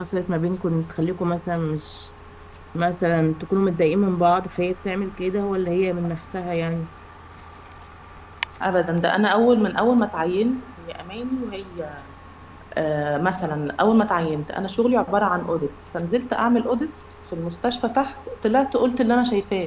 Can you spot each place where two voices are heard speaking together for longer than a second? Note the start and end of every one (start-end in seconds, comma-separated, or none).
none